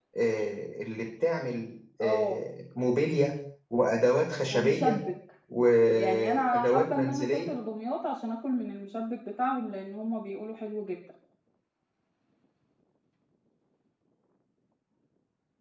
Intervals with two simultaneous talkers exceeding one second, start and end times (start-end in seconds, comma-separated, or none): 6.0-7.5